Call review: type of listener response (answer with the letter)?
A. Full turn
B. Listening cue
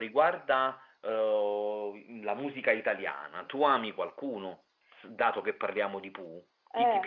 A